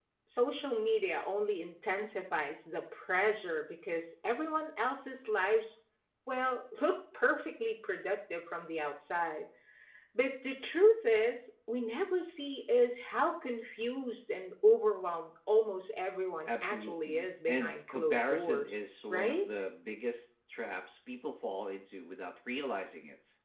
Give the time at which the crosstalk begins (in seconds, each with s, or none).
16.5 s